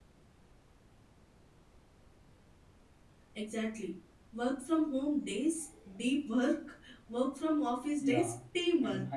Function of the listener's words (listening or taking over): taking over